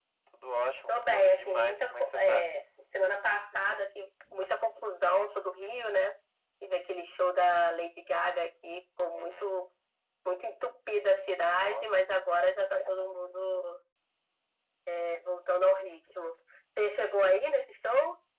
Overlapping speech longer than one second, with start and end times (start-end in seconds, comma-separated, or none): 0.9-2.5